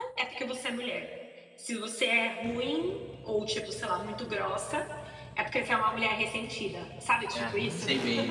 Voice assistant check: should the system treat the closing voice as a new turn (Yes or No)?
Yes